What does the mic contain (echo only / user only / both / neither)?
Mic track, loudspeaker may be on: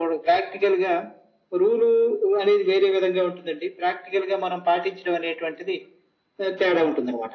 echo only